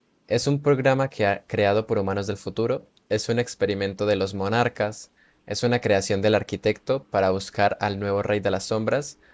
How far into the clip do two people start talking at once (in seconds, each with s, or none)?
none